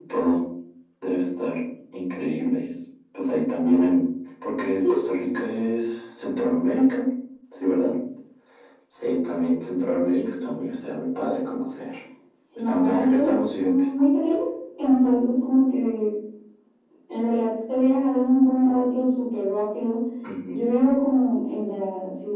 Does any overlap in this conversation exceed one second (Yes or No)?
Yes